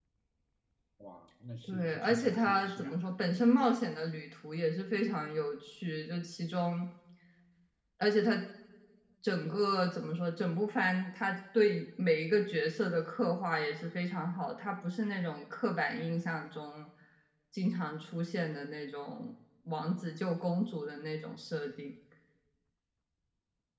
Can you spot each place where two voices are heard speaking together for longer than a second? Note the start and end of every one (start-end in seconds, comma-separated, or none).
1.7-2.9